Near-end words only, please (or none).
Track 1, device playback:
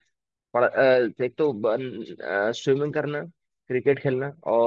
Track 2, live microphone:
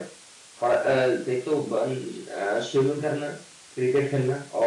none